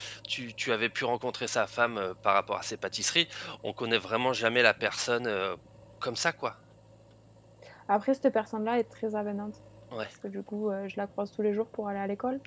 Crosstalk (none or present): none